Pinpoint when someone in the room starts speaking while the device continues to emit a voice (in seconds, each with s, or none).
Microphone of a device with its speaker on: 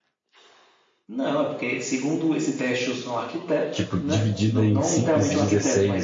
3.7 s